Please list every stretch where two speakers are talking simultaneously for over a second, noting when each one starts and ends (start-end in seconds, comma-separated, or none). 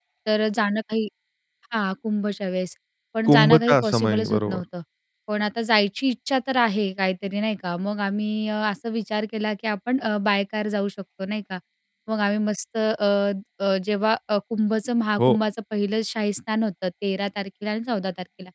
3.3-4.6